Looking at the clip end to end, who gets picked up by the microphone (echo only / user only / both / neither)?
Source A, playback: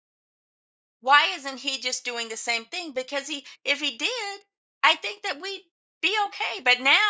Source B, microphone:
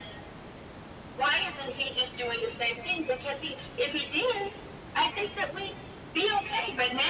echo only